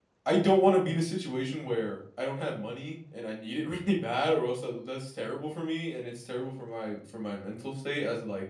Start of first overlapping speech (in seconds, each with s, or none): none